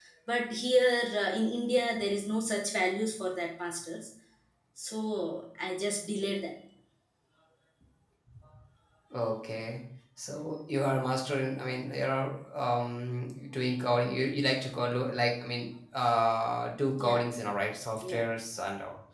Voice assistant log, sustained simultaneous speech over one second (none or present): none